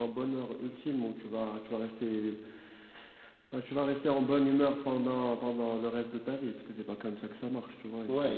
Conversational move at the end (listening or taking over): taking over